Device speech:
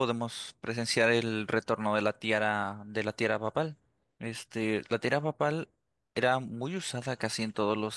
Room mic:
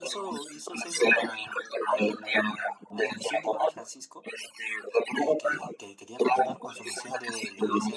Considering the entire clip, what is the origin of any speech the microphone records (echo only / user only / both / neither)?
both